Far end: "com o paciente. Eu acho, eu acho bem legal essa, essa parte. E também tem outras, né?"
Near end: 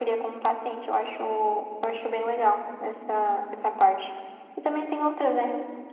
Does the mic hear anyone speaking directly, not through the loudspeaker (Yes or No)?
No